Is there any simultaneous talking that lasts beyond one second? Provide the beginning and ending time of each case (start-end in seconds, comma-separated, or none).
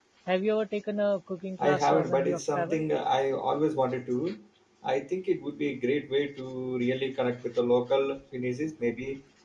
1.6-2.8